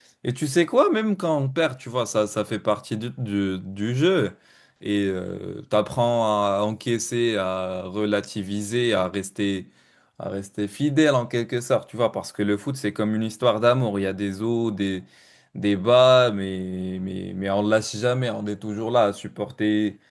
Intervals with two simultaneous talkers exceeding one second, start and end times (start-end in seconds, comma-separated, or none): none